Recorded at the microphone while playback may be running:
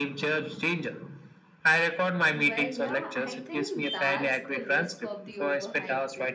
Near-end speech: present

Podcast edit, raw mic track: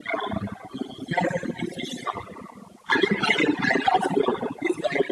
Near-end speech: none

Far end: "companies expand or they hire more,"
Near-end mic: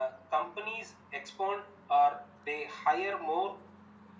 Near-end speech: none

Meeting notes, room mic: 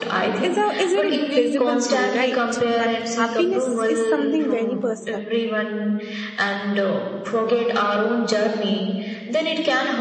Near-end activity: present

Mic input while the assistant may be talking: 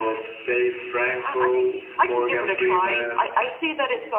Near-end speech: none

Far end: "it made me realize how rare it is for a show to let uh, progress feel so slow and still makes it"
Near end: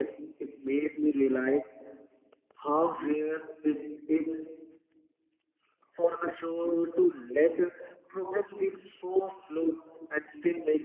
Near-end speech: none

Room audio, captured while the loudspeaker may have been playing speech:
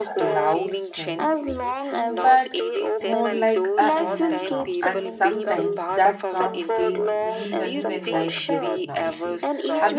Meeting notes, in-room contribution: present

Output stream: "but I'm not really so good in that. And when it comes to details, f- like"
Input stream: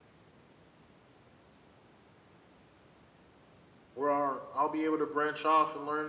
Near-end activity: present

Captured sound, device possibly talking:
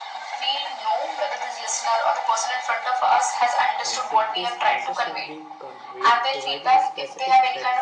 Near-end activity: present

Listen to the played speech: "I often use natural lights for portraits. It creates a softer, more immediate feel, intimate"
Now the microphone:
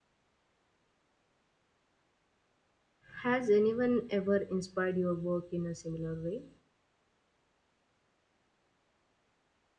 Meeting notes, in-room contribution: present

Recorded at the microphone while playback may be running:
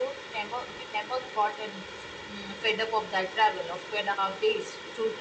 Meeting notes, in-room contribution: none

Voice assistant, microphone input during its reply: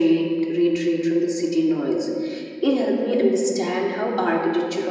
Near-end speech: none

